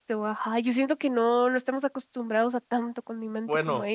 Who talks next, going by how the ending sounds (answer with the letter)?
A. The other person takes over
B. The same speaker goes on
A